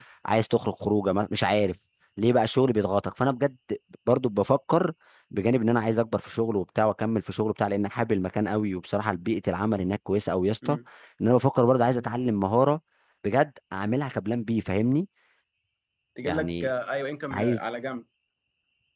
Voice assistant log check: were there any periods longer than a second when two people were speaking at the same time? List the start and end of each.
none

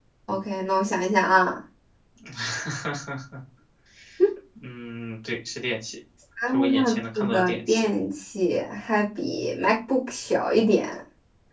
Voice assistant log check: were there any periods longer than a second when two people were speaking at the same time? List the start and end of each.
6.5-7.9

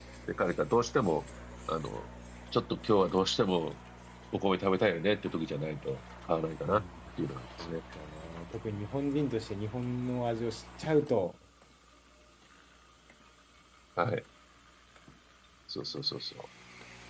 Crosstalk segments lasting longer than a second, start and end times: none

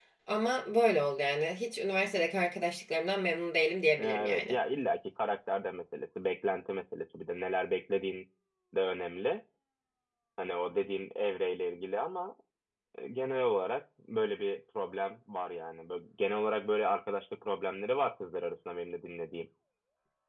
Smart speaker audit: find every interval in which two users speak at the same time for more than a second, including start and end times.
none

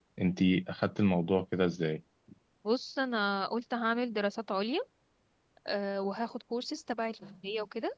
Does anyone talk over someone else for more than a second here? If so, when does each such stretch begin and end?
none

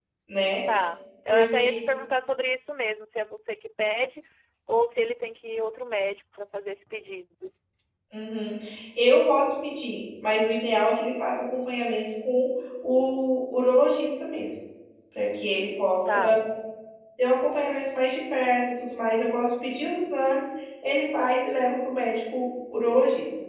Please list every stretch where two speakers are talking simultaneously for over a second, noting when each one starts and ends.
none

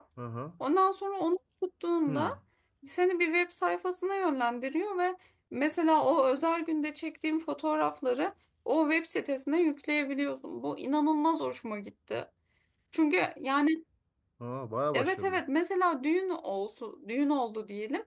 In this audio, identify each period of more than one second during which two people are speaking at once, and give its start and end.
none

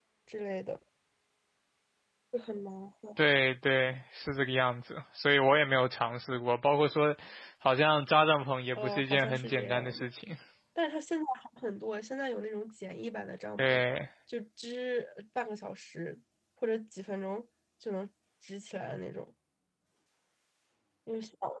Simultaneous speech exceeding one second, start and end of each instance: 8.8-10.1

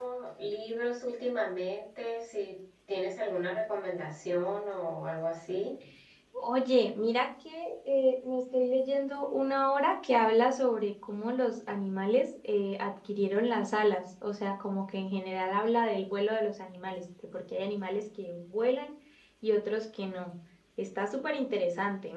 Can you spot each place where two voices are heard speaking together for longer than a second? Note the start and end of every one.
none

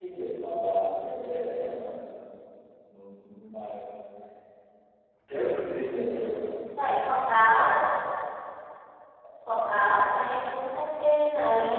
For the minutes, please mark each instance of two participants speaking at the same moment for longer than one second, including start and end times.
none

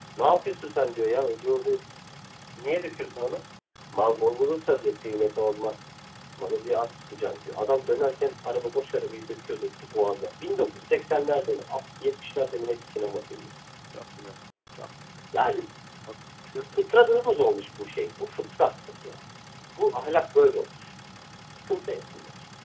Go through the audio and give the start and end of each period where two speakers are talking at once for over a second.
none

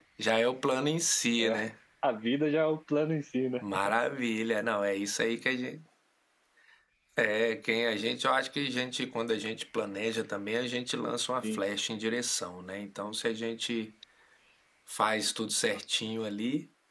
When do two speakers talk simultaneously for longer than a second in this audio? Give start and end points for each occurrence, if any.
none

